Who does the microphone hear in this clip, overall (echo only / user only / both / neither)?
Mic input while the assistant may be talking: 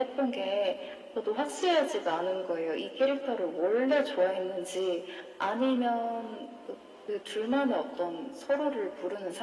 echo only